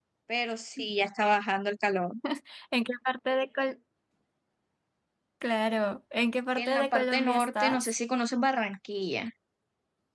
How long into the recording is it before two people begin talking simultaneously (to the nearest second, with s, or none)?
7 s